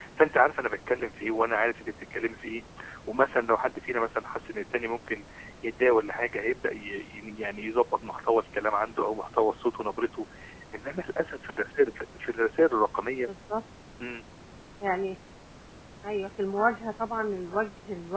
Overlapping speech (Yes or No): No